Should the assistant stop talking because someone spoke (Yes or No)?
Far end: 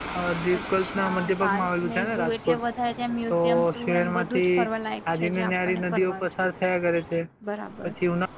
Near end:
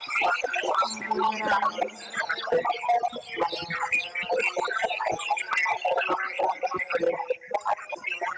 Yes